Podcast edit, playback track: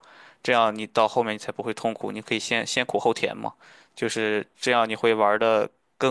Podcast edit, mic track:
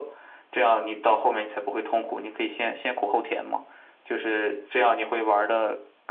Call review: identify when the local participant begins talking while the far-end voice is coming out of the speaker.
none

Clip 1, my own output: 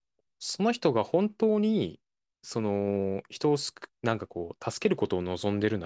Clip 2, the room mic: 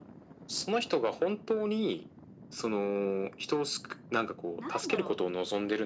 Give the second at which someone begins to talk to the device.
4.6 s

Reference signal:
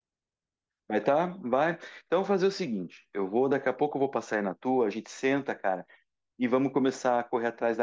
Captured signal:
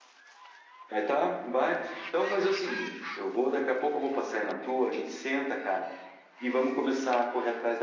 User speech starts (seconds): none

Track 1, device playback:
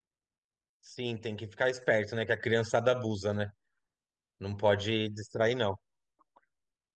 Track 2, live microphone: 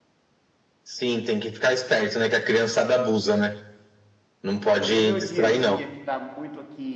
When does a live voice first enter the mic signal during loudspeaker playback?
4.7 s

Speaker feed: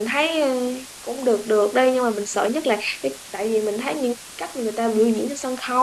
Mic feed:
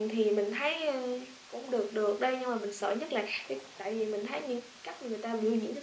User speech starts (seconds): none

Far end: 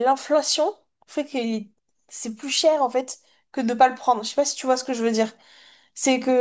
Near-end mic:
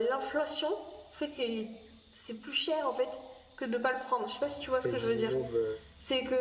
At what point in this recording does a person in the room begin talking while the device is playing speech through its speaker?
4.7 s

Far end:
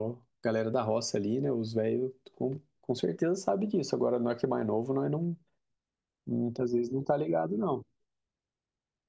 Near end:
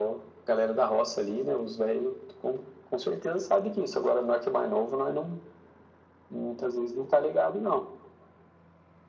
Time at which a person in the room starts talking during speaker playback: none

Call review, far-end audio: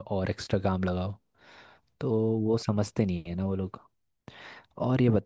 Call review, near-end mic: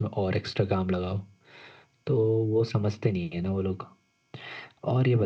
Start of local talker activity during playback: none

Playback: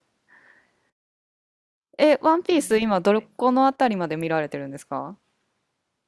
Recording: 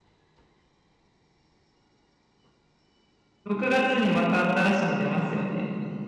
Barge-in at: 3.4 s

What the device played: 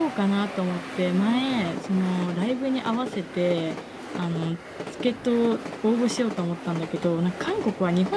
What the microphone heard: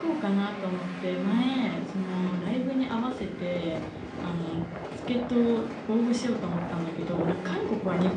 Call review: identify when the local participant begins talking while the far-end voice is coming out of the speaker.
none

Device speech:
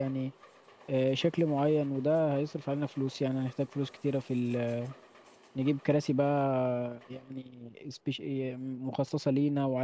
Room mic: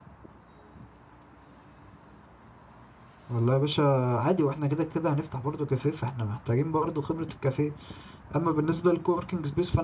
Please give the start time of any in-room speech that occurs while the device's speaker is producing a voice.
3.3 s

